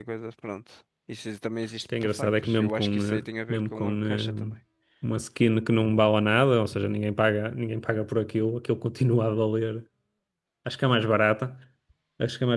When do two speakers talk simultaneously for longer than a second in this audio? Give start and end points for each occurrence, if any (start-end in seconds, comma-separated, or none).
2.0-4.5